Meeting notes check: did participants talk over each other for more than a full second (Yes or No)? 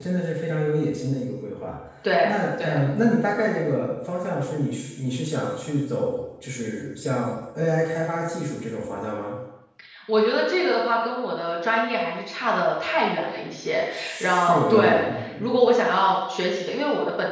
Yes